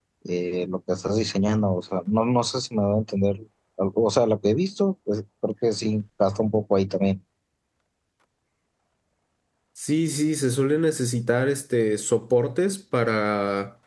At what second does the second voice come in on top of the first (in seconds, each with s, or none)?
none